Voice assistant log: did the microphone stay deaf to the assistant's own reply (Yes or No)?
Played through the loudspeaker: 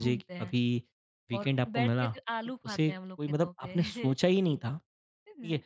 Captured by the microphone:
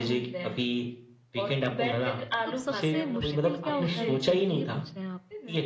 No